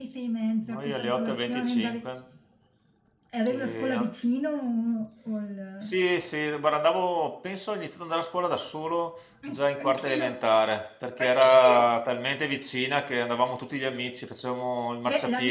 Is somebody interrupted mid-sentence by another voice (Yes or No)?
Yes